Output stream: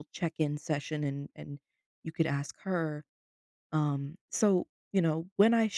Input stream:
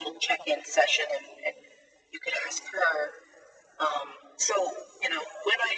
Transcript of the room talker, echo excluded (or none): none